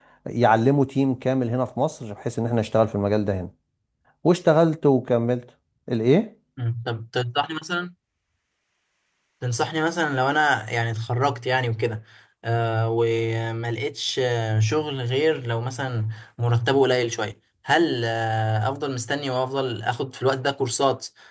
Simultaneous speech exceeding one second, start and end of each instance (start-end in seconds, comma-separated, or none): none